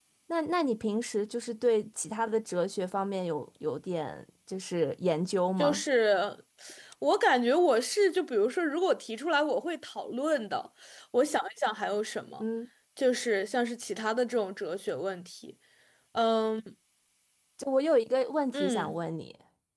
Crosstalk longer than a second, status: none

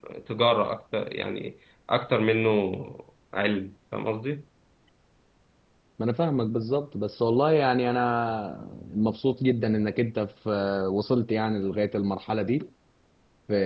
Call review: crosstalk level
none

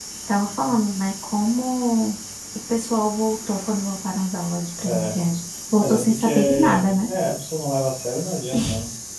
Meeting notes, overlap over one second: present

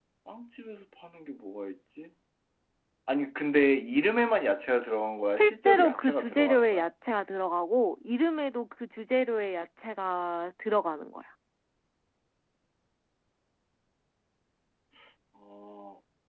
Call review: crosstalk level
present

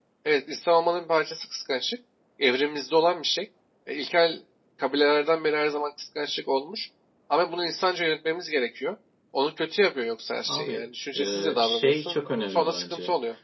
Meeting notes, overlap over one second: present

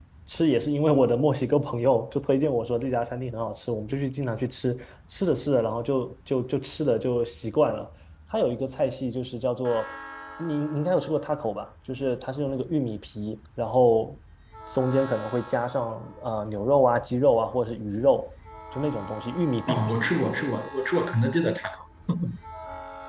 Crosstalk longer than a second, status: none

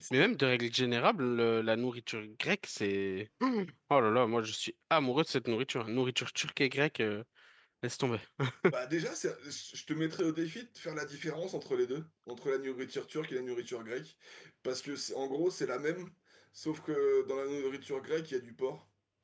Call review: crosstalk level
none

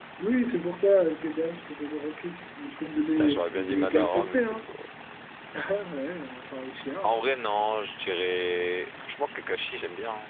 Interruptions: present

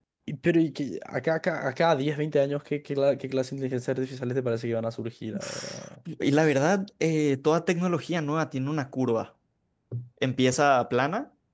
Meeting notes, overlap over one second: none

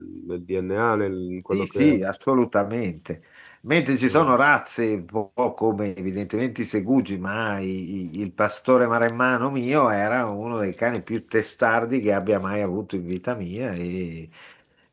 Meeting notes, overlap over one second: none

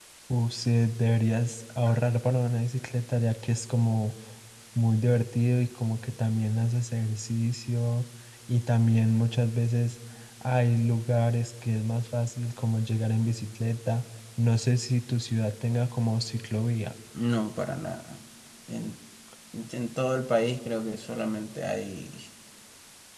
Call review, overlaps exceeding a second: none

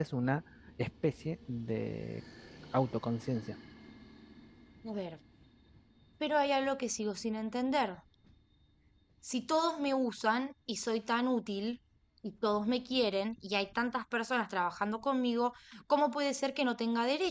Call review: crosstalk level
none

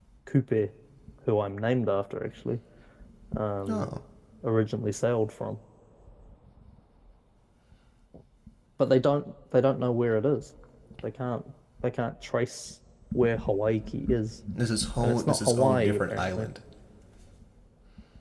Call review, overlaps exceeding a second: present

